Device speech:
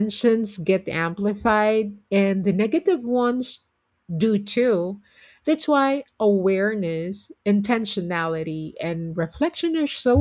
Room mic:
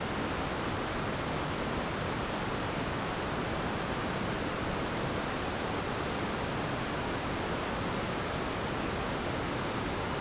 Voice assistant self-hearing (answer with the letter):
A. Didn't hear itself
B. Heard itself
A